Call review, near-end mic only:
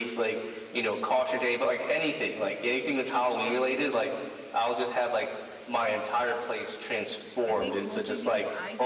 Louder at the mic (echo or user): echo